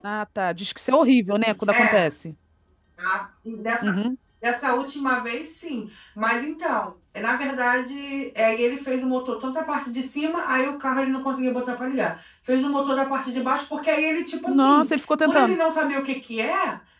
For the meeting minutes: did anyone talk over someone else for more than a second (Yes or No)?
No